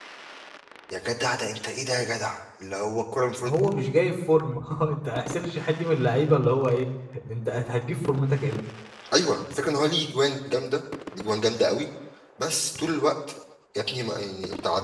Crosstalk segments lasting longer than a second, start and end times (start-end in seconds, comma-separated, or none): none